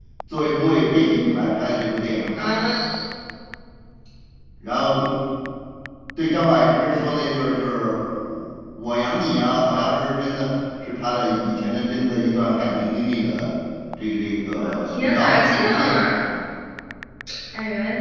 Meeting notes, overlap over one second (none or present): present